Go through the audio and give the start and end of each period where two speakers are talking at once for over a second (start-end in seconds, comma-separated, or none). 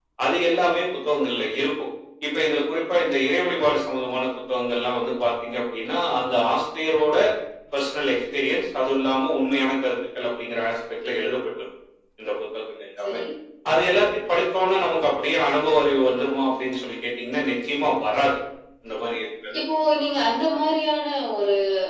none